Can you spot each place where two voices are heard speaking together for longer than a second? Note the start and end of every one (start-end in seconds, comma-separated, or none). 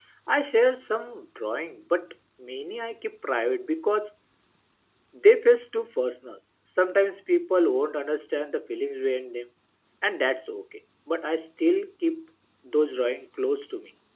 none